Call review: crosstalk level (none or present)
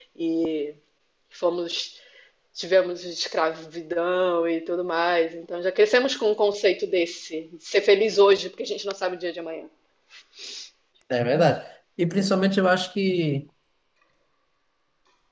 none